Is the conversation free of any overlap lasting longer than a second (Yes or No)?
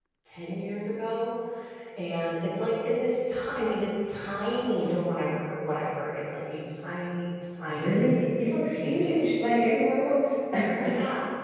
Yes